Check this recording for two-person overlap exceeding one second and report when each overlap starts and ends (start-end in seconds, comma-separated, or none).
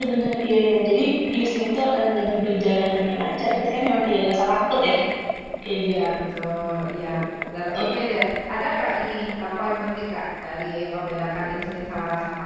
none